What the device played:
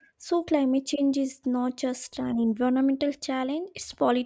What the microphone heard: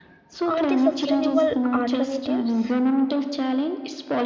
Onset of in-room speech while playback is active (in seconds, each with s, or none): 0.5 s